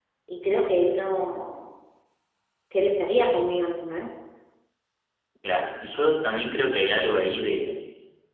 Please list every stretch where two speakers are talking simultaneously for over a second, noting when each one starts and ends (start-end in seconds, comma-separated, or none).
none